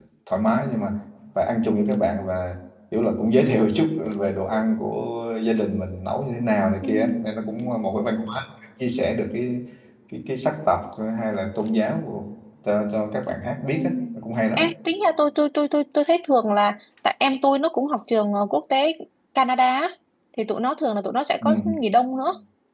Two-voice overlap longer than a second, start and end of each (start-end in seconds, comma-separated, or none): none